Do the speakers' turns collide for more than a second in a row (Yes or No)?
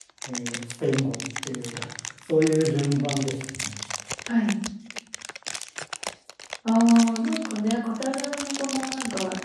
No